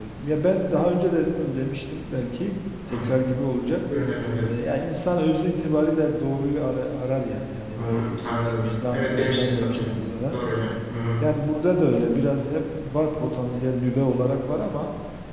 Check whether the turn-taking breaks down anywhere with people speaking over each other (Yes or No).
Yes